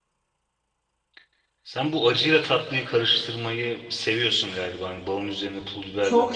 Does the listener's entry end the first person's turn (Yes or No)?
Yes